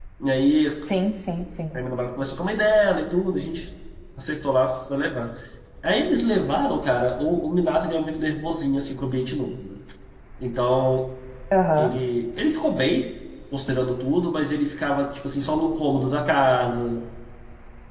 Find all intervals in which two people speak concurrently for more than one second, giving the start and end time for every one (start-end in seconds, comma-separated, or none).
none